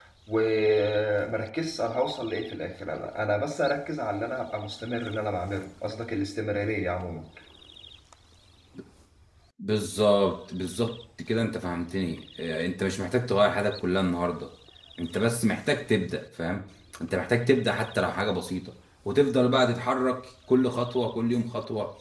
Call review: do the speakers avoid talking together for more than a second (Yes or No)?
Yes